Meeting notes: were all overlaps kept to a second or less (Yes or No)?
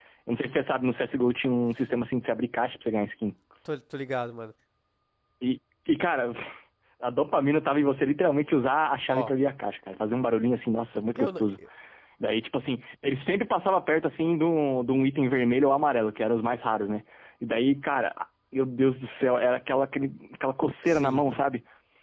Yes